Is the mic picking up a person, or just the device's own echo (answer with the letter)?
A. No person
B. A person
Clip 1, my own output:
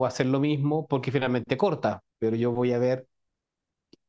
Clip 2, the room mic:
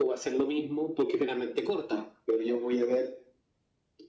A